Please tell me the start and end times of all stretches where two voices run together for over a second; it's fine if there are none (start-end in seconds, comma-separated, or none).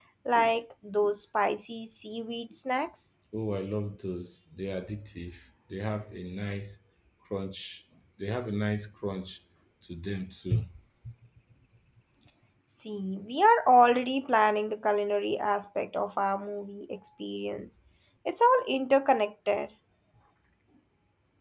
none